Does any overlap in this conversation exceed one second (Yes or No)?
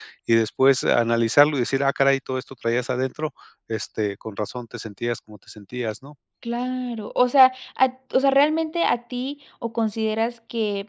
No